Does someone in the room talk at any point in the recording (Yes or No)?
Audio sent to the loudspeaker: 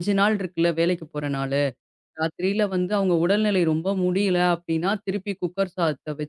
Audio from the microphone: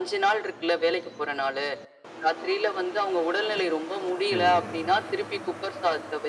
Yes